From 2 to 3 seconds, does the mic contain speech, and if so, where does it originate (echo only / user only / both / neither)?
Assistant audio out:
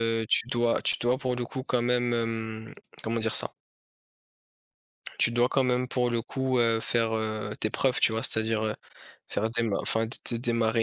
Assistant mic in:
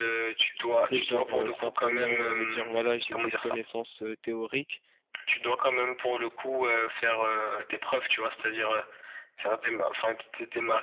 both